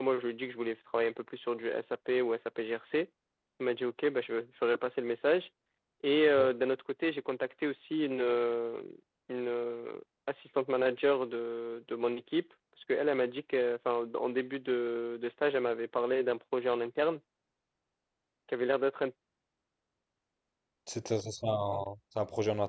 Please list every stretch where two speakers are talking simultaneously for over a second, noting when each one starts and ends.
none

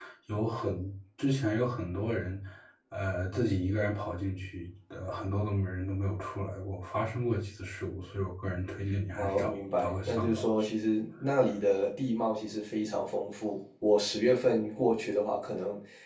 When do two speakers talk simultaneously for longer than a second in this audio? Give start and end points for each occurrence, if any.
9.2-10.7

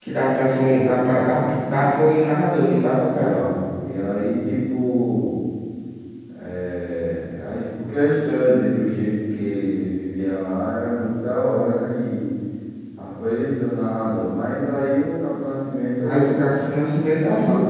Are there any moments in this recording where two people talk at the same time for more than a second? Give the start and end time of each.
none

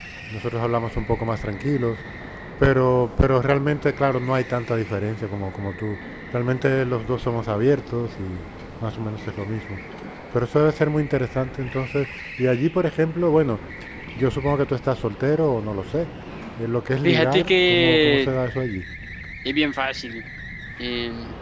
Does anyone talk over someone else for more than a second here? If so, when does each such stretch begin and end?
17.0-18.3

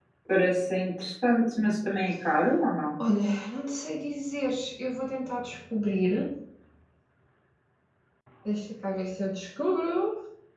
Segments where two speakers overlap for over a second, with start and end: none

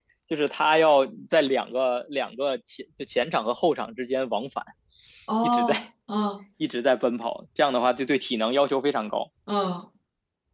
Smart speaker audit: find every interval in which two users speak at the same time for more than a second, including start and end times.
none

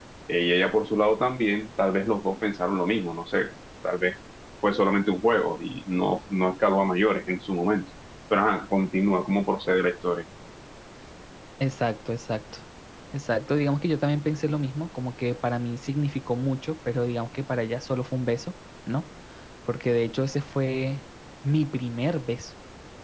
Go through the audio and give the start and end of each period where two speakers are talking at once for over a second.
none

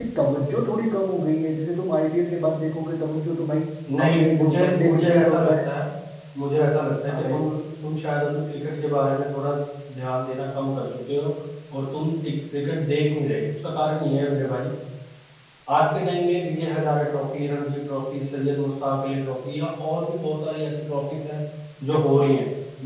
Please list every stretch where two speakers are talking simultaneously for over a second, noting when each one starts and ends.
4.0-5.5

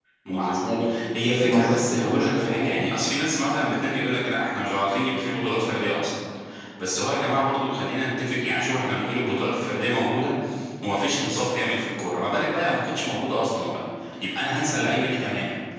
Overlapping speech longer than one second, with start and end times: 1.3-2.7

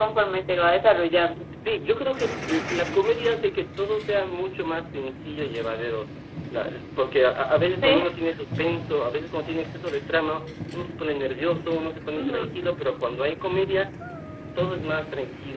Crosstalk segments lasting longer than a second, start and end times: none

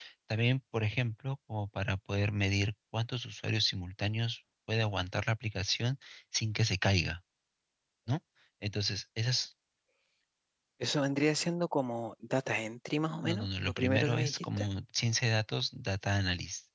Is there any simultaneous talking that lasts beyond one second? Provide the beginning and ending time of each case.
13.2-14.7

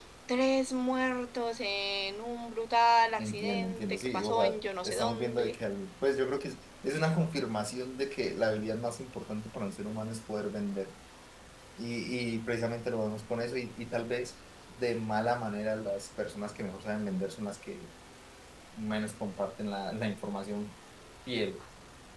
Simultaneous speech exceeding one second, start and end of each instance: 3.2-5.5

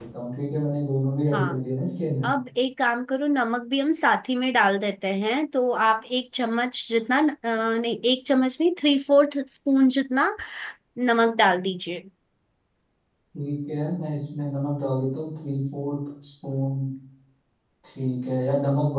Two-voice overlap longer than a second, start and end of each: none

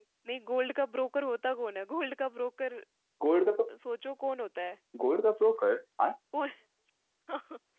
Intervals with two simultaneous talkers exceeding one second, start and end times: none

